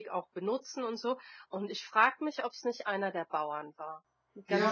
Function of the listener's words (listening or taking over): taking over